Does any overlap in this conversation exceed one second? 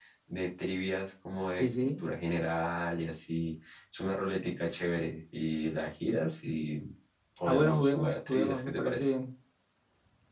Yes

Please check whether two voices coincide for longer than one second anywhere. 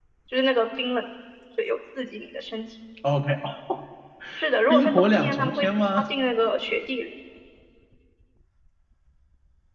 Yes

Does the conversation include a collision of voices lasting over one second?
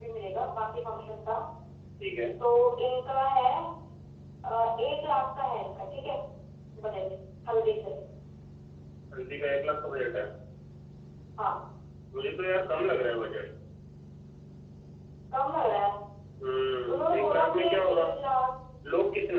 Yes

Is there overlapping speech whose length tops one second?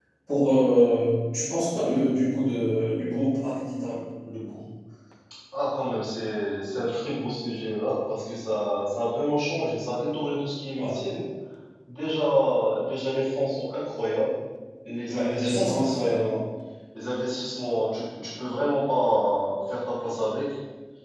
Yes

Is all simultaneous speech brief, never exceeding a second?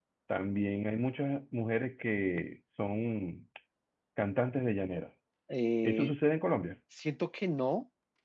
Yes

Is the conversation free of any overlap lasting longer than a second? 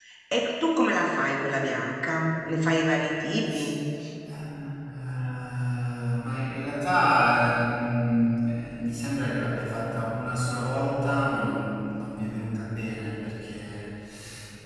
Yes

